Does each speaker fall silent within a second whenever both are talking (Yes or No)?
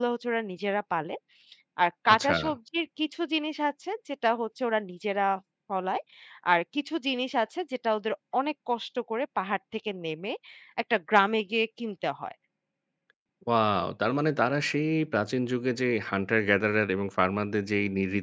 Yes